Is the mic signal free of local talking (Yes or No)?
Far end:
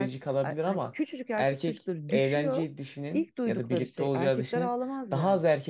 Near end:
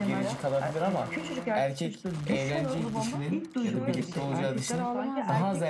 No